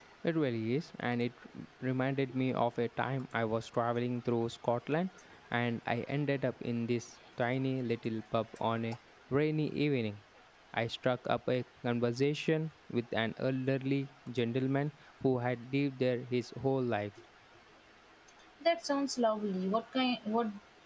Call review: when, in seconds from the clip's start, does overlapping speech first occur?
none

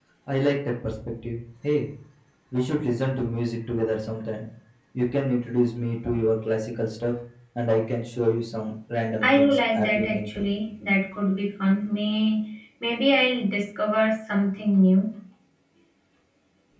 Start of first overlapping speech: 9.2 s

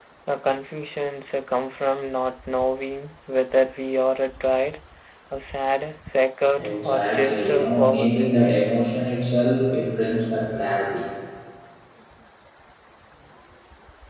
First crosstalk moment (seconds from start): 6.5 s

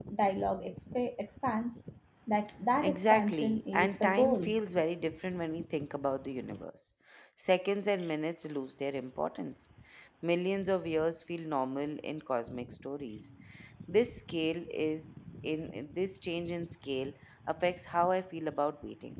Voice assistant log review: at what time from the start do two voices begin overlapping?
2.8 s

